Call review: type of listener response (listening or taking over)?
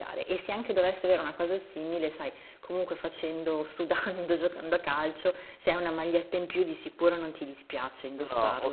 taking over